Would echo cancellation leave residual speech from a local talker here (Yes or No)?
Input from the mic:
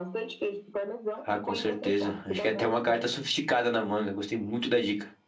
Yes